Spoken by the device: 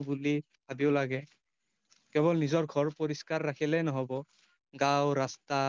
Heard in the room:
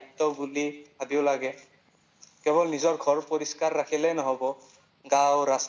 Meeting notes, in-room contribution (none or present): none